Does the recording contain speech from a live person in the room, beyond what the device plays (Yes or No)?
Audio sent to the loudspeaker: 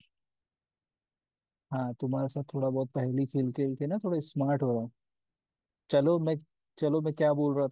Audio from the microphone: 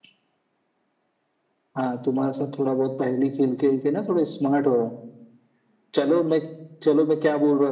No